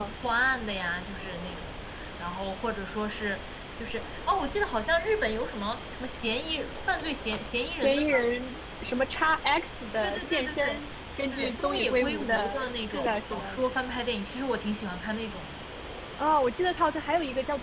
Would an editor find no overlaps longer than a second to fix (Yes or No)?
No